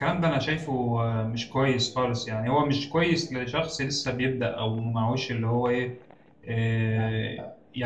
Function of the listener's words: listening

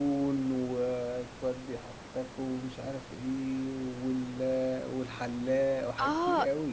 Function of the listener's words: taking over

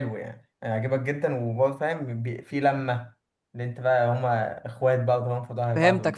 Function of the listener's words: taking over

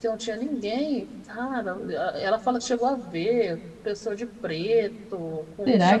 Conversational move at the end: taking over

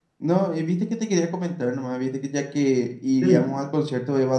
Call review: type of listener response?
listening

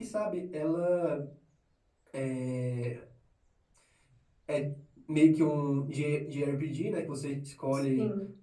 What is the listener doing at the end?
listening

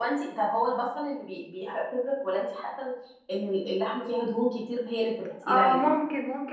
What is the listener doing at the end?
taking over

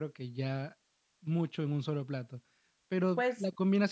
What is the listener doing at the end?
listening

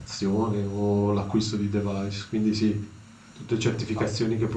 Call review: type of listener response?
listening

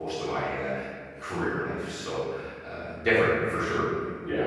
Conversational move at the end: listening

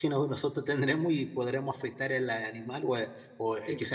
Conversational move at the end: listening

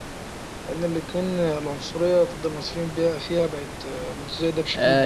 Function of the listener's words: taking over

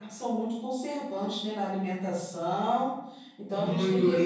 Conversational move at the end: taking over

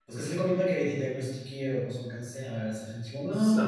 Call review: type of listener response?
taking over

